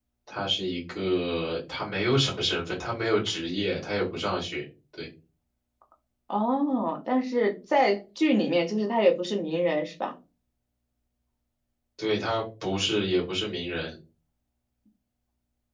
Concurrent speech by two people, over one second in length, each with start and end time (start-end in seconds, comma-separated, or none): none